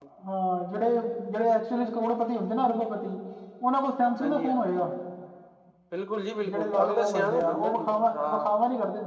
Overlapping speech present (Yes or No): Yes